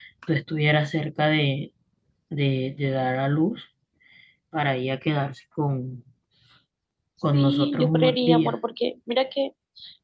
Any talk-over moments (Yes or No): Yes